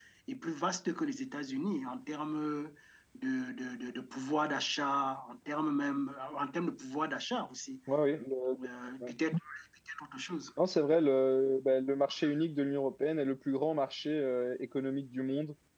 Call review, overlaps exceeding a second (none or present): none